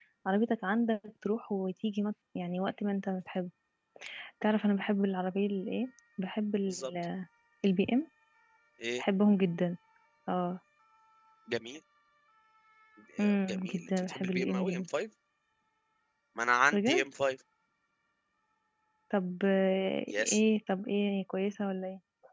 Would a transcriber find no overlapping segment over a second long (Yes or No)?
No